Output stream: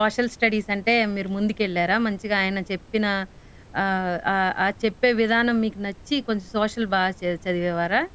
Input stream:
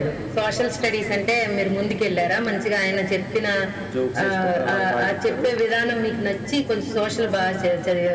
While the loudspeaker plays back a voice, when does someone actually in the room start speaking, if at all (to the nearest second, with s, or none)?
4 s